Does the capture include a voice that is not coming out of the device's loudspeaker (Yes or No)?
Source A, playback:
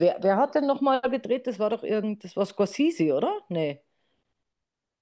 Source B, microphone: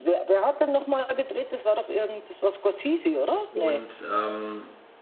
Yes